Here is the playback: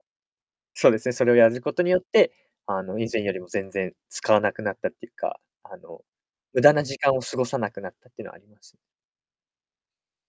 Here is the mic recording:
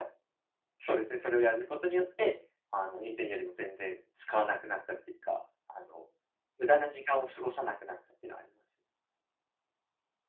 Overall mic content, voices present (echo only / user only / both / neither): echo only